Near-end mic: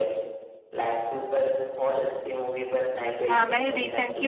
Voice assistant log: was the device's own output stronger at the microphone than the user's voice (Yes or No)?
No